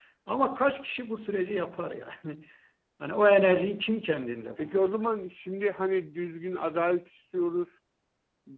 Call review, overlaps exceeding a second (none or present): none